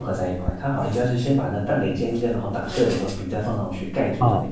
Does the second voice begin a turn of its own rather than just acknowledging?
Yes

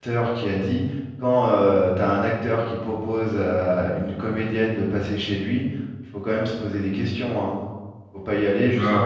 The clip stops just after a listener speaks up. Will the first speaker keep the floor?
No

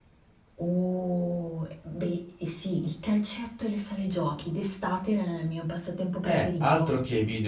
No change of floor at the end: No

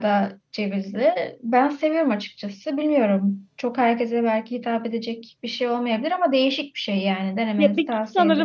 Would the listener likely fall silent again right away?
No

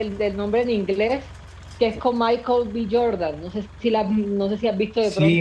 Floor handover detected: Yes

